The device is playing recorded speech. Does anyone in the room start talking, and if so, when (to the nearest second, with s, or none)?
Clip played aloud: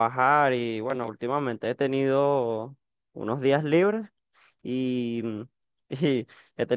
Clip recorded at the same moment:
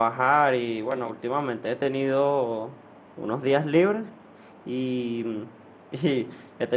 none